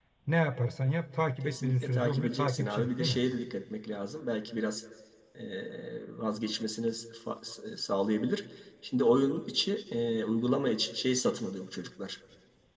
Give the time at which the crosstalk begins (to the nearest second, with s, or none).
1 s